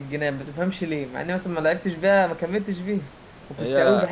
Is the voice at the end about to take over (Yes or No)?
No